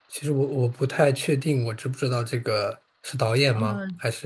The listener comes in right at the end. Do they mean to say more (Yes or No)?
Yes